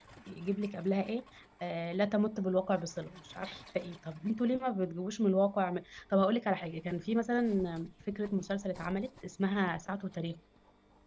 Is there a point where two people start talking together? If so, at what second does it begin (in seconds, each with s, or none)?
none